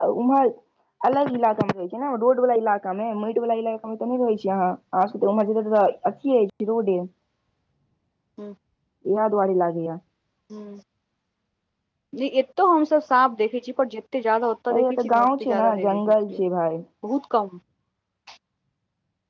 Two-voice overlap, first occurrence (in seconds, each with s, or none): 14.7 s